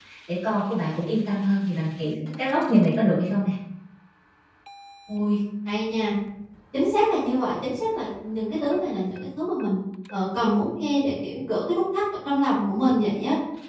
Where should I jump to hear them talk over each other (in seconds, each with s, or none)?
none